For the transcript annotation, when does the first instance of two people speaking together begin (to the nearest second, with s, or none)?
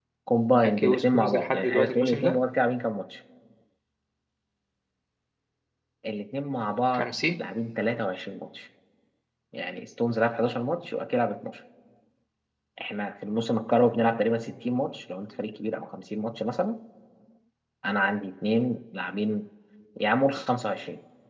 1 s